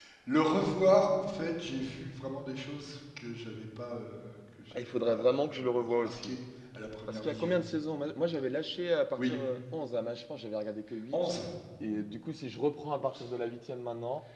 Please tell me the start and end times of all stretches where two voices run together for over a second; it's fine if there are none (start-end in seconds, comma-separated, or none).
4.7-6.4